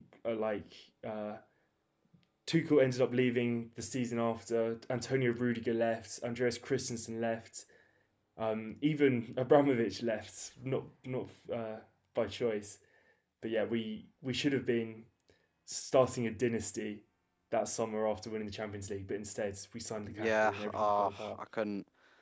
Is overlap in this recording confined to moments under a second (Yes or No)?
No